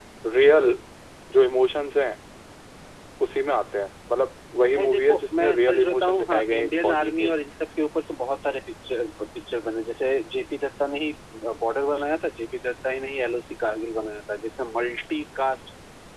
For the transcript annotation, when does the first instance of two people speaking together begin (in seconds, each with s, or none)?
4.8 s